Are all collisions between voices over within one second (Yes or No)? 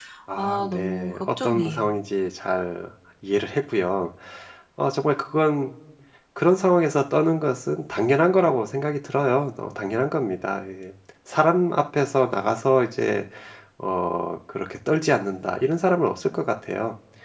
No